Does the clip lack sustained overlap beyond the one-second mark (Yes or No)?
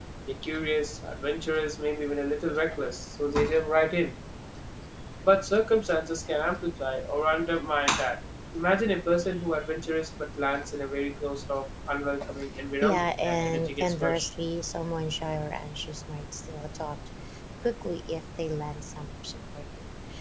No